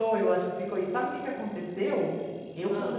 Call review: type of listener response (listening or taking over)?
listening